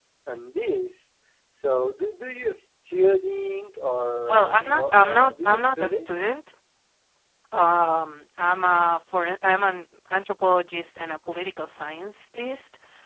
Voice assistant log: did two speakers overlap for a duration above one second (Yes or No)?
Yes